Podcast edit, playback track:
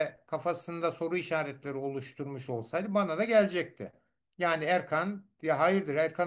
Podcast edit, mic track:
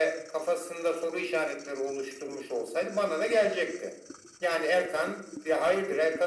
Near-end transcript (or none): none